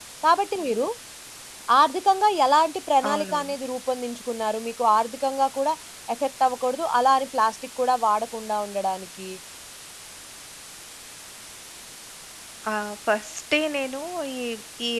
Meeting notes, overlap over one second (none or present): none